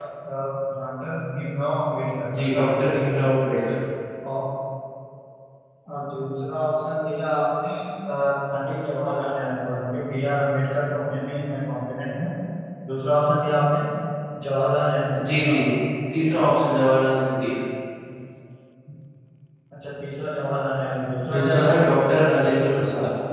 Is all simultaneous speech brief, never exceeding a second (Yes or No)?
Yes